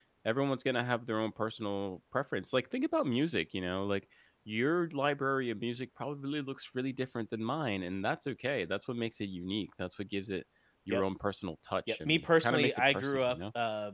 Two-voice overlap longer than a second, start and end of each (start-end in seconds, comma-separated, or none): 11.9-13.4